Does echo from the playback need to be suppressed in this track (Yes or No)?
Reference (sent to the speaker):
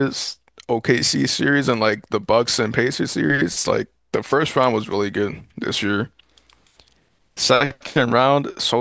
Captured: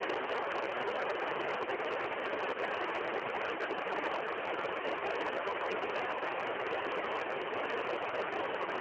No